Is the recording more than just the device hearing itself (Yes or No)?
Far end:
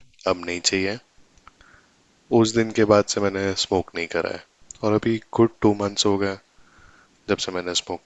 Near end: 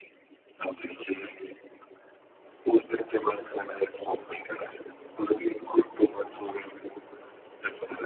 No